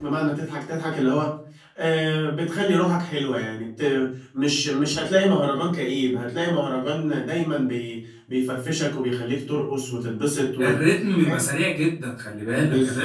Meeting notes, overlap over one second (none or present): none